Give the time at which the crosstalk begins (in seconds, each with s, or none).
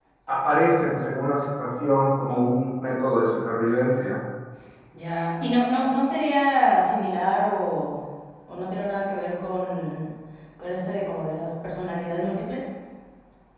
none